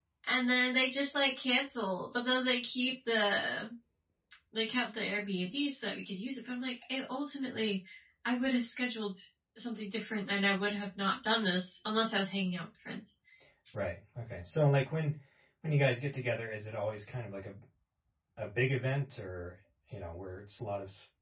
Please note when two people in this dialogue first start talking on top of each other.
none

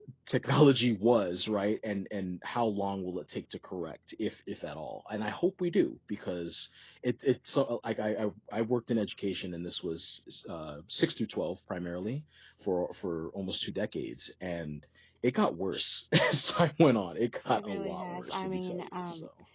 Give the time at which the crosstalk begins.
17.5 s

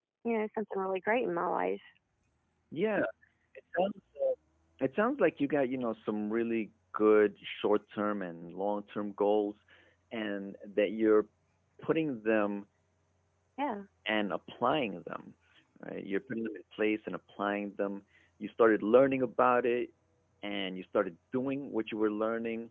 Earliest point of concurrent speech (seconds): none

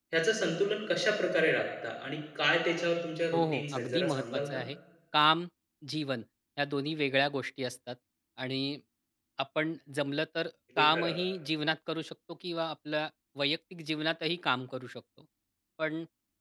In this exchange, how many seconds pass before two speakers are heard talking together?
3.3 s

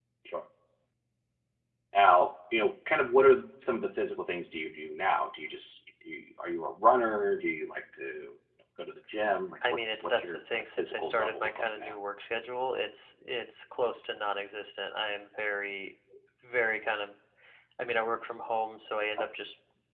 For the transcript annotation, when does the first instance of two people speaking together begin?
9.7 s

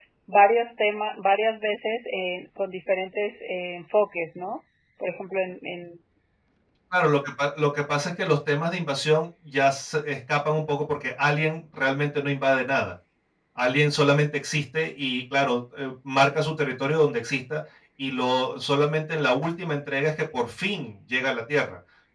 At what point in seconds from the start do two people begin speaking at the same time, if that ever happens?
none

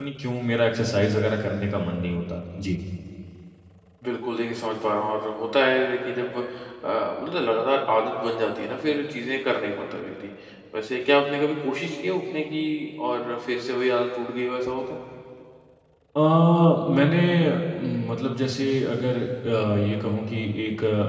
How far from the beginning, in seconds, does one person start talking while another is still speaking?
none

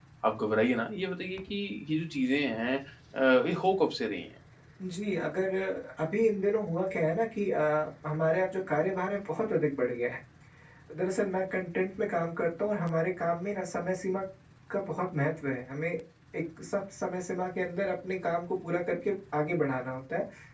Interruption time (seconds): none

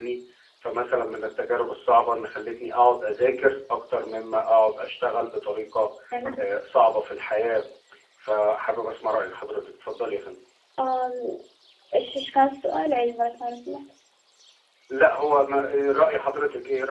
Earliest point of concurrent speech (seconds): none

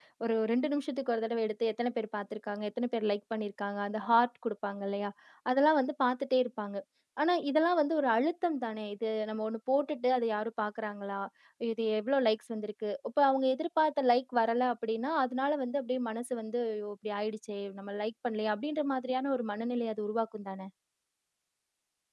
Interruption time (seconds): none

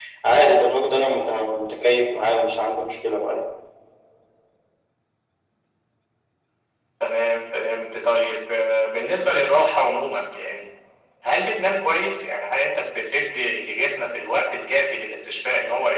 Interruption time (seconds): none

